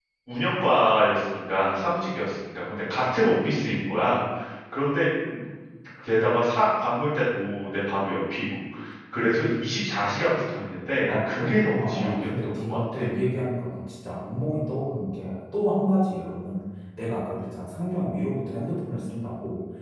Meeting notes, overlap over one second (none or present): present